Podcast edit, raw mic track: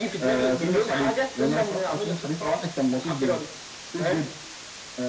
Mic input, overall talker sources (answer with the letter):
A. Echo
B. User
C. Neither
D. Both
A